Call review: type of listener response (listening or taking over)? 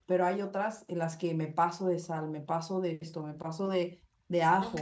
listening